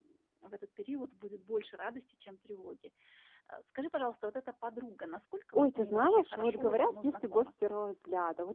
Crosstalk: present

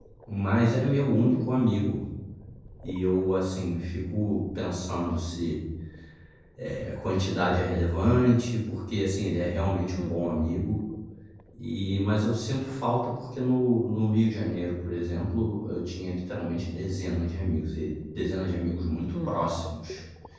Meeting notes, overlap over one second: none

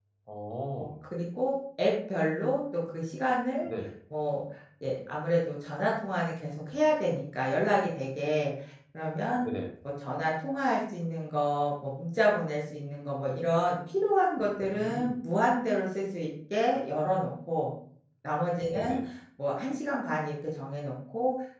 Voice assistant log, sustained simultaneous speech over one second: none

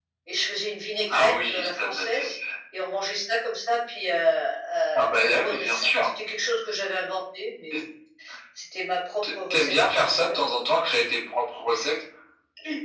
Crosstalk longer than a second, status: present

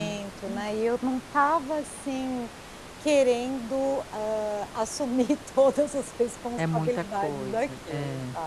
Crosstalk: present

